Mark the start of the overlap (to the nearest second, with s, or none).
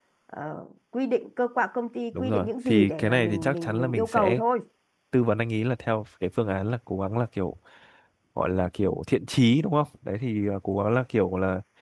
2 s